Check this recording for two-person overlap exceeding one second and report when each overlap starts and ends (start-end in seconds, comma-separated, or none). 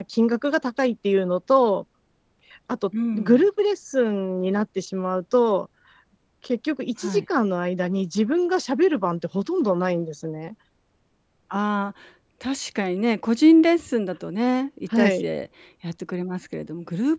none